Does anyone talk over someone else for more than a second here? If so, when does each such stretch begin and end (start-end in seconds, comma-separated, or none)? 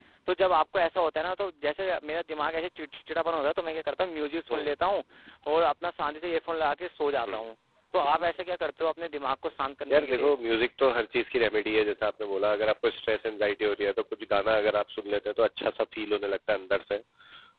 none